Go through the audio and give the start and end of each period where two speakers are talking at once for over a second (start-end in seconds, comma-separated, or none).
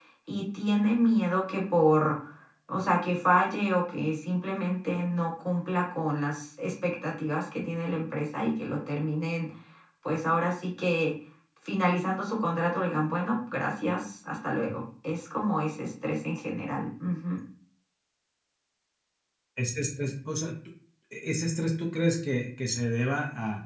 none